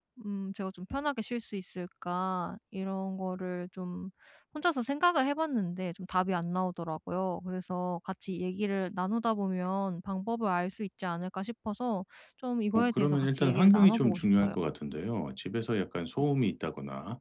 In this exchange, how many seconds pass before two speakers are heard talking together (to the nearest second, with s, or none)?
13 s